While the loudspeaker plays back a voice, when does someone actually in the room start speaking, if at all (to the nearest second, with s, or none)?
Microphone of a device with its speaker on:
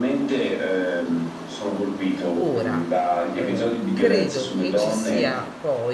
2 s